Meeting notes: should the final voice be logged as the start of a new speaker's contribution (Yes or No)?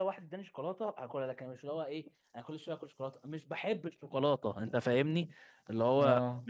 No